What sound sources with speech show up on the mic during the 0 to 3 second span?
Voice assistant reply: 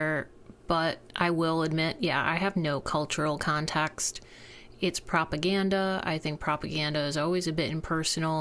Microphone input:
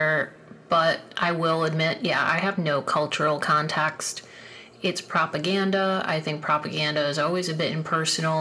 echo only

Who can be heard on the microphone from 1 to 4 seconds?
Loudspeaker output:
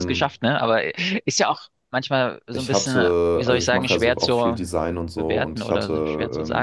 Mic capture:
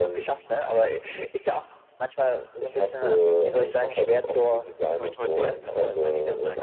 echo only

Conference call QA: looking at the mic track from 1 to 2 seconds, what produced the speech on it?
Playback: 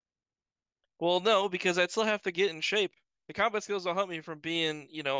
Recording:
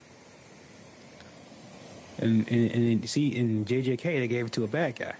neither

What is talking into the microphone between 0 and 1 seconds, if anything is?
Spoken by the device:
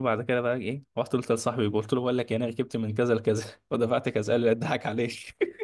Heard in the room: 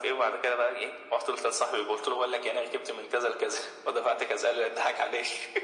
echo only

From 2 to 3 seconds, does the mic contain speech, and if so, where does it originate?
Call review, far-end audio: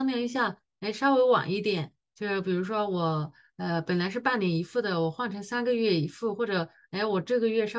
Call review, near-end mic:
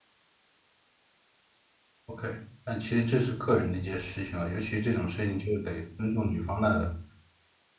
user only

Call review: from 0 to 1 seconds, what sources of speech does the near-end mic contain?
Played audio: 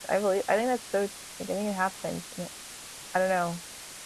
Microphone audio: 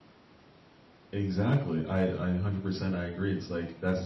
neither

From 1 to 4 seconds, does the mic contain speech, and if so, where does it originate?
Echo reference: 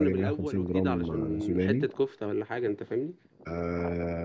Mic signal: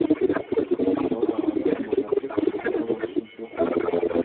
both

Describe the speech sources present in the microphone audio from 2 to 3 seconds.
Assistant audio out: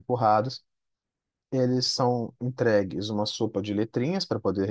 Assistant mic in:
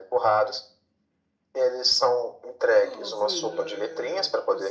both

